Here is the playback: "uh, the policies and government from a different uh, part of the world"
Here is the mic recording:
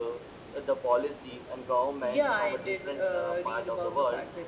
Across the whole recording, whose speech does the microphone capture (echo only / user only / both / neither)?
both